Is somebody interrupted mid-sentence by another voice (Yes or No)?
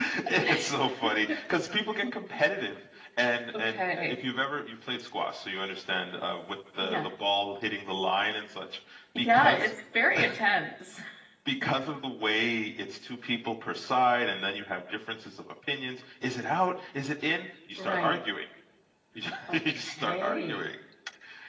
Yes